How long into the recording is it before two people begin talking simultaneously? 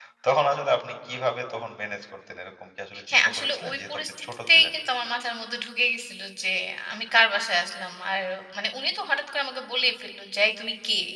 3 s

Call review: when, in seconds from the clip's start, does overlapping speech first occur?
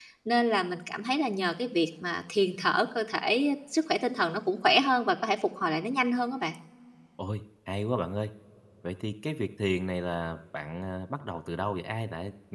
none

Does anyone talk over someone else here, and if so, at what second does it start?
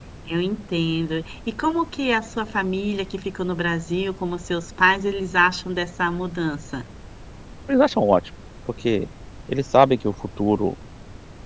none

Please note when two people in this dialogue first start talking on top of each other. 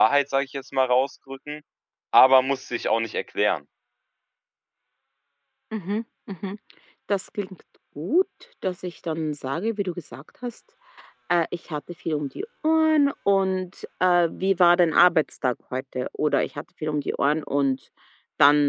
none

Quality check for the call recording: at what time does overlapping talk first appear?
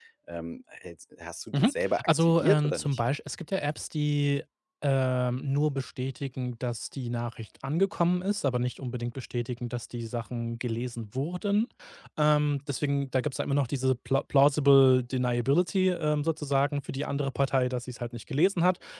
2 s

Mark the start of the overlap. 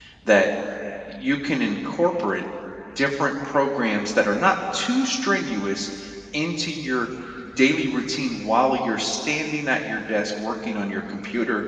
none

